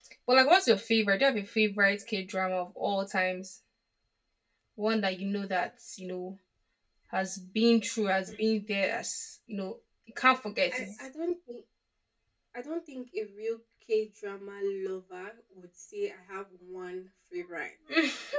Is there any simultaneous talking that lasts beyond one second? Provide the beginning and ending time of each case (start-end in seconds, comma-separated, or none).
none